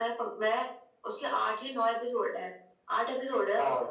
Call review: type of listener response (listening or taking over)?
listening